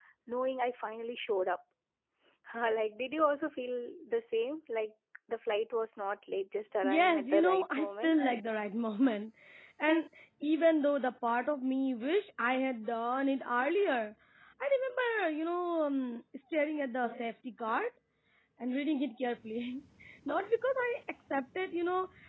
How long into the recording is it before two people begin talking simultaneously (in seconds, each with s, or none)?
6.8 s